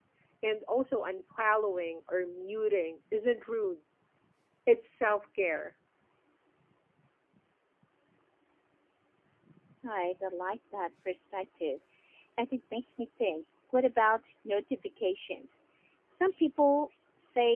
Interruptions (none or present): none